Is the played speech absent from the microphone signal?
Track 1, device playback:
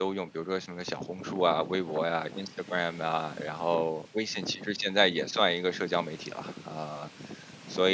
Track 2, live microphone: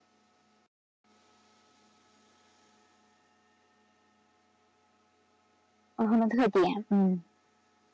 Yes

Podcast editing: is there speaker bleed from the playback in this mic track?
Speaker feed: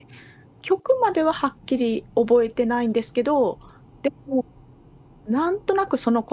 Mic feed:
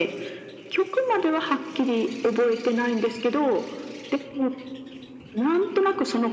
Yes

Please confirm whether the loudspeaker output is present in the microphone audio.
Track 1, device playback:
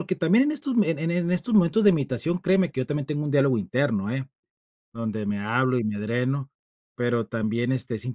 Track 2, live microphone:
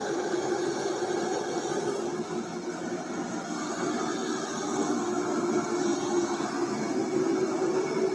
No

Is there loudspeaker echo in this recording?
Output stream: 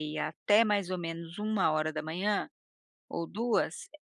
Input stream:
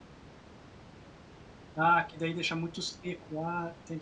No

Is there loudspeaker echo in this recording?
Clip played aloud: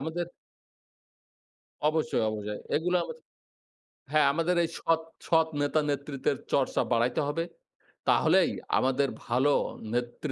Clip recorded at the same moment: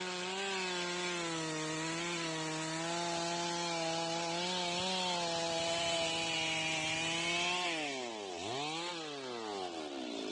No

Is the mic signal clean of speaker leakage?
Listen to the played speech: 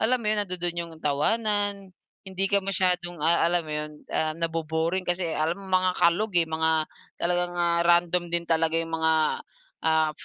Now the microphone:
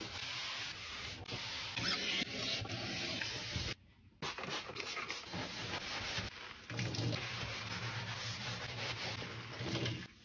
Yes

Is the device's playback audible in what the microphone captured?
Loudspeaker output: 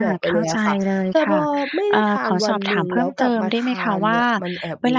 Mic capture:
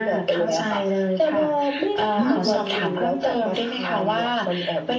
Yes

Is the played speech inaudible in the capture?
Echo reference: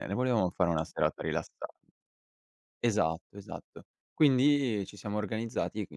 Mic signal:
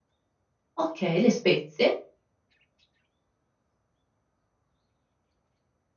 Yes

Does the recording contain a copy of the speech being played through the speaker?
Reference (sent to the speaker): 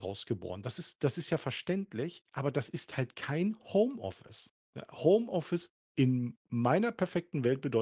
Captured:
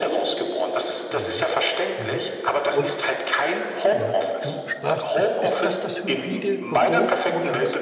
Yes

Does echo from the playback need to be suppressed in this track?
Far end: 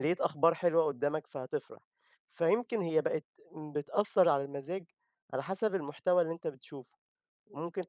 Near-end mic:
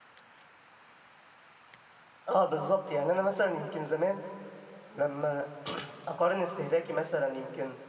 No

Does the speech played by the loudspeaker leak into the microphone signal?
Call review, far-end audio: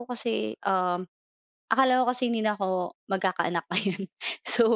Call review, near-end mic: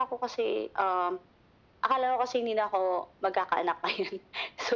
Yes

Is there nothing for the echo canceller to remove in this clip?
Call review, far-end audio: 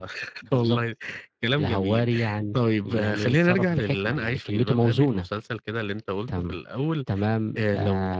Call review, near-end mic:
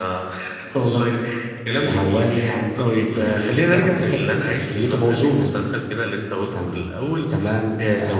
No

